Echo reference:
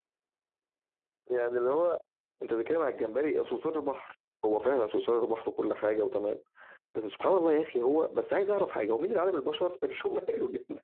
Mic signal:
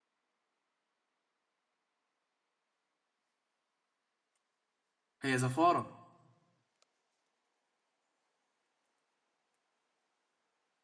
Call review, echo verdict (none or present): none